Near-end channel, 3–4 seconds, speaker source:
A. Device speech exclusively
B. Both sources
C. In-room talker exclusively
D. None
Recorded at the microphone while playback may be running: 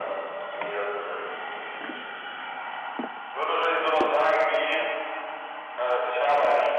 A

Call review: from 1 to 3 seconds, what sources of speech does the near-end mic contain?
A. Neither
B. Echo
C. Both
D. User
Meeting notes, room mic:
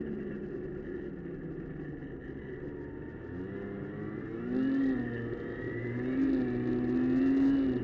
A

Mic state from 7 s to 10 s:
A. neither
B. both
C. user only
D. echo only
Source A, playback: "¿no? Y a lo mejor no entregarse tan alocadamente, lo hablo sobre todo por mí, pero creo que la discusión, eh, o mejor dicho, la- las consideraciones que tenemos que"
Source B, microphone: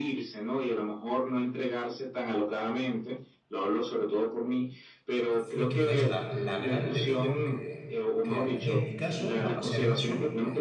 B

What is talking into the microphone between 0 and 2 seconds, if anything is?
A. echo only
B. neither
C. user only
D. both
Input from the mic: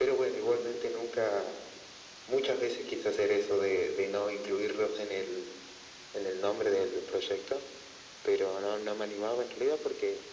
A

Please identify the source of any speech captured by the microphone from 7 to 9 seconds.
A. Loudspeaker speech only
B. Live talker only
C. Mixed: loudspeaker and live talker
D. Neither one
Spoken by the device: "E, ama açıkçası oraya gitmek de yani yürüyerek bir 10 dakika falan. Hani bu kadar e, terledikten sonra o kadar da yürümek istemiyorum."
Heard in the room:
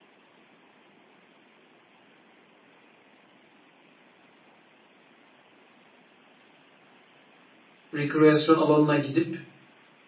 B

